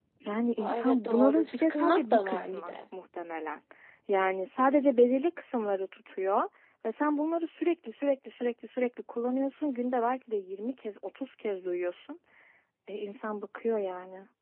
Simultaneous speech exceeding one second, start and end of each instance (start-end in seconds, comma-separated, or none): 0.6-2.7